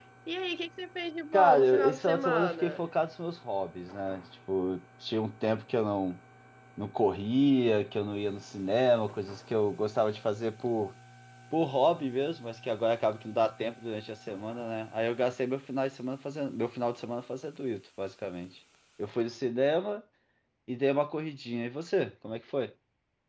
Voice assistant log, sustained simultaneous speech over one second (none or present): present